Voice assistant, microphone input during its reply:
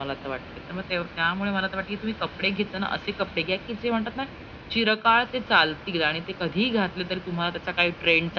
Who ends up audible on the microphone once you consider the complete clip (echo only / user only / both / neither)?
echo only